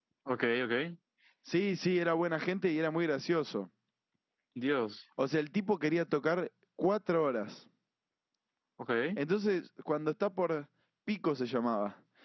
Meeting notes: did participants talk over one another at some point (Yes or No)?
No